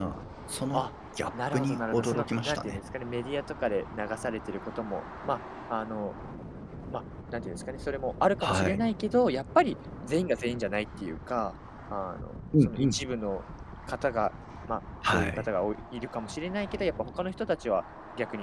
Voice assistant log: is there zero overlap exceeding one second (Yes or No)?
No